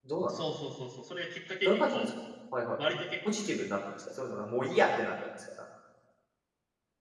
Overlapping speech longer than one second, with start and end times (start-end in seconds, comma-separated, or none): none